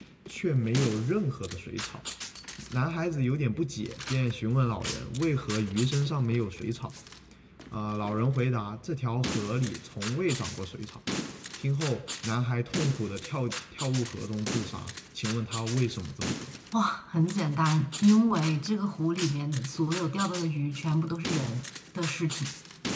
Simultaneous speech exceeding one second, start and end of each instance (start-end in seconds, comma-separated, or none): none